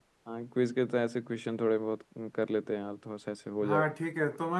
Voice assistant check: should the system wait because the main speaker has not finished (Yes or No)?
No